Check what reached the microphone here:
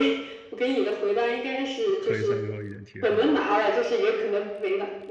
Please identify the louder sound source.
echo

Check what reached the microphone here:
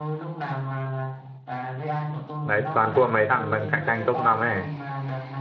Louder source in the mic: user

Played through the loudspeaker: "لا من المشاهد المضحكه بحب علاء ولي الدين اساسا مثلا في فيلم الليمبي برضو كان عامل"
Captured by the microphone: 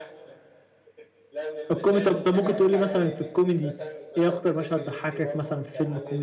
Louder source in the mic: user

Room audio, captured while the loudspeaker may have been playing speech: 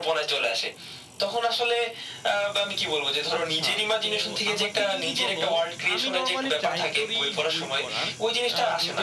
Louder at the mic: echo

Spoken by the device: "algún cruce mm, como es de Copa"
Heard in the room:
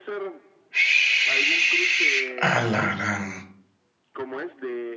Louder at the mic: user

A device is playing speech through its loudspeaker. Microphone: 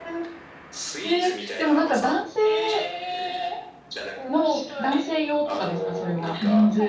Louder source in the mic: user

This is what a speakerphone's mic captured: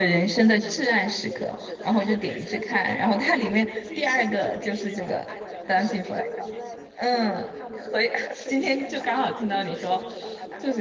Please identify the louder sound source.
user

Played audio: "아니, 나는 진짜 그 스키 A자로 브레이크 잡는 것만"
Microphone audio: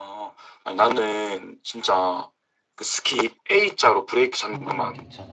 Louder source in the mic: echo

